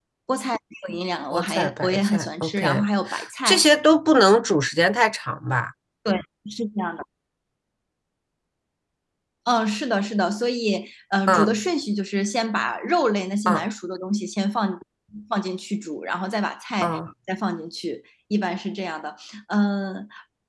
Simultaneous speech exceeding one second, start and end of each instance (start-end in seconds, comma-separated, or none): 1.3-2.8